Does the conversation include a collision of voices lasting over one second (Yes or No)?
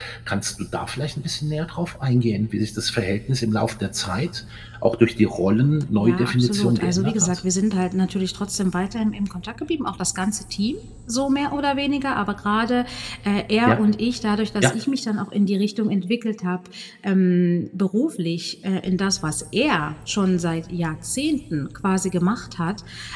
Yes